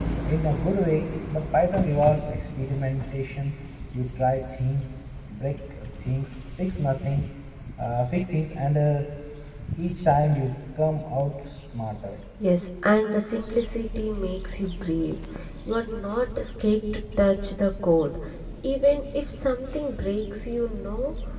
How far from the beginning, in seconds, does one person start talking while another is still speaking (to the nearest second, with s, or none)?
none